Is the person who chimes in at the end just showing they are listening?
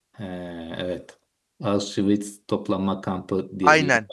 No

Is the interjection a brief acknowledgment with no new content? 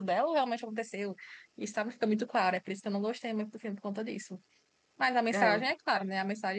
Yes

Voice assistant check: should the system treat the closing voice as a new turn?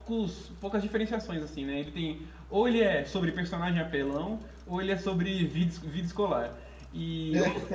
No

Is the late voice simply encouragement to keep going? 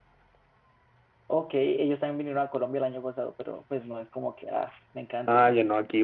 No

